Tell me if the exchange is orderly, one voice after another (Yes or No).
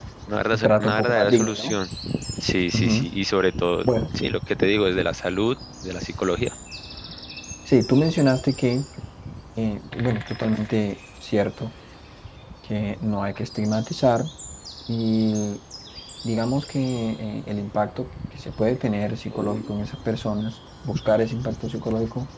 No